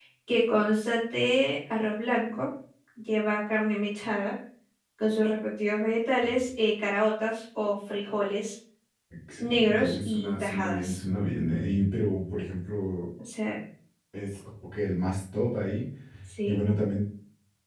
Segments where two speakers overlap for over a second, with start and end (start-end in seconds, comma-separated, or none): 9.4-10.9